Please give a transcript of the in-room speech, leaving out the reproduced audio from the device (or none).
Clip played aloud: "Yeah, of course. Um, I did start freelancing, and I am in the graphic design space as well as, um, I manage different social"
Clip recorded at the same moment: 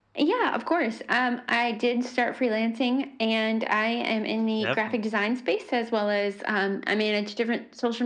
definitely.